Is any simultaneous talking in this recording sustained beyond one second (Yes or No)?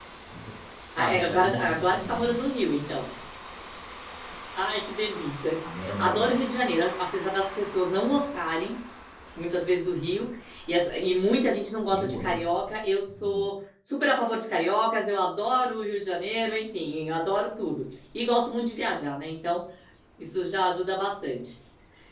Yes